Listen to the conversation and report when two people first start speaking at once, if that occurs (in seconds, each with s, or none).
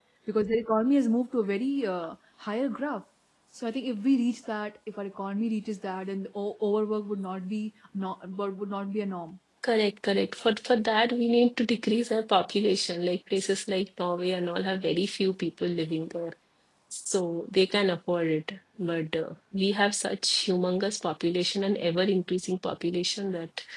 none